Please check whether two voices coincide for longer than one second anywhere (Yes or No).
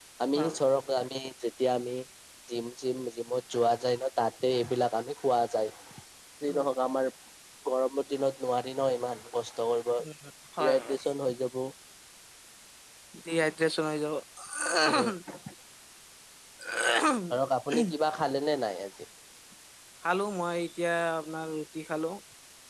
No